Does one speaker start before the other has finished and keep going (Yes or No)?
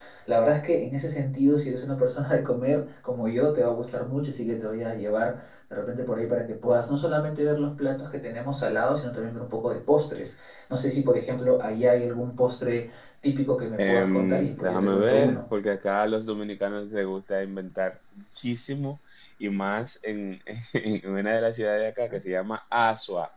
Yes